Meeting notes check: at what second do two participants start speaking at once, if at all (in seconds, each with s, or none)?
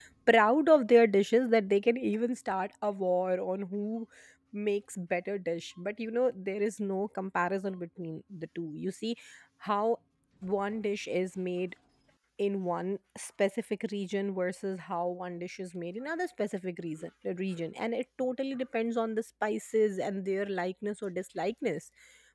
none